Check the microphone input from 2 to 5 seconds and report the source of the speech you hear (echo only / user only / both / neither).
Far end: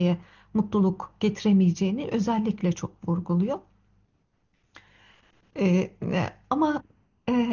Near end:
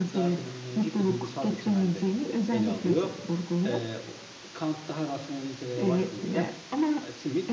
both